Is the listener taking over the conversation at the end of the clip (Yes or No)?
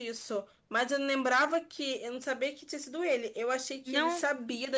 No